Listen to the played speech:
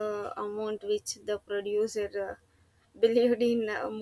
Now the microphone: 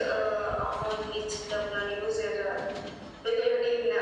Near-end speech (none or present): none